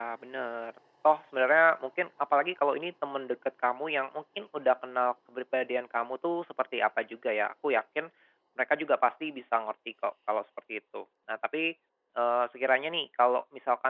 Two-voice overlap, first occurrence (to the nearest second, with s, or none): none